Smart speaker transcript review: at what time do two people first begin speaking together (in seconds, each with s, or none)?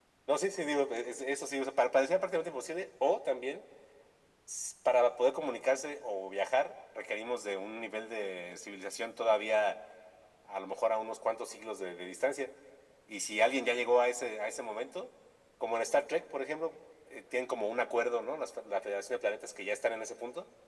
none